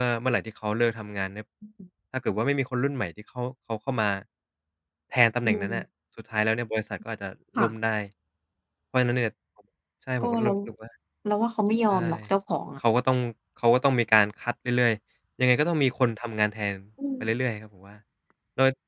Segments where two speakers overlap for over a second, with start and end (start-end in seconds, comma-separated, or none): none